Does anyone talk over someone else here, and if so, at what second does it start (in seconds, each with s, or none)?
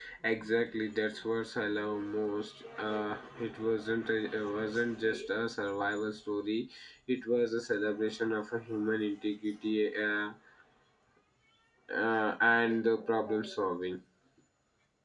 none